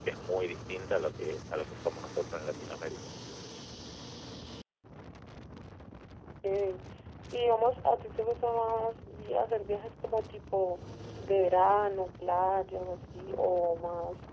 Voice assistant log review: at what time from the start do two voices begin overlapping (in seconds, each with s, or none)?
none